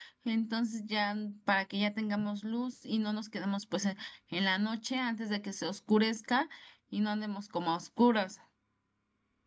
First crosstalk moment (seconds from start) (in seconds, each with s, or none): none